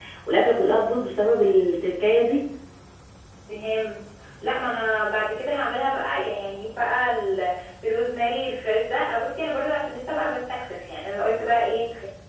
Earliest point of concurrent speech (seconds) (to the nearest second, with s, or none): none